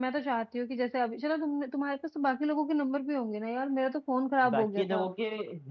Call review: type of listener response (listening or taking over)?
taking over